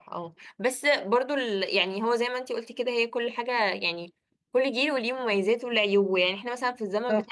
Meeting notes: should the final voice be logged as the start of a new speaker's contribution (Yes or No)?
No